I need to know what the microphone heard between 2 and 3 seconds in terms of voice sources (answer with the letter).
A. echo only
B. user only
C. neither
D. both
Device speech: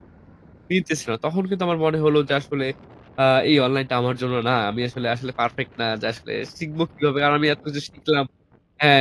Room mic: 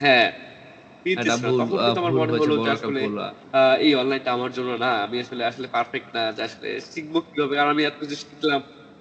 D